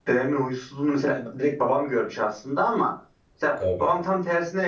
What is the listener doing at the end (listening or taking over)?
listening